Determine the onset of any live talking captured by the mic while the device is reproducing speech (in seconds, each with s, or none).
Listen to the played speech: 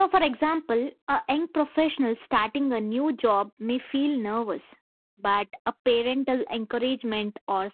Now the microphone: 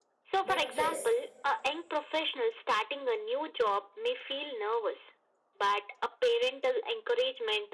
0.5 s